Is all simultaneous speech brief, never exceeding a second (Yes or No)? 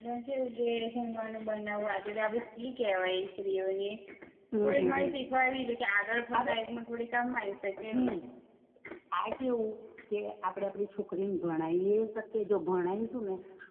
Yes